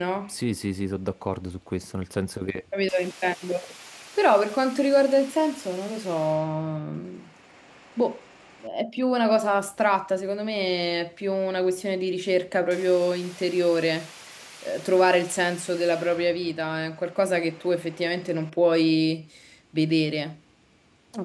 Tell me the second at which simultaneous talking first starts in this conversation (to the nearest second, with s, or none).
none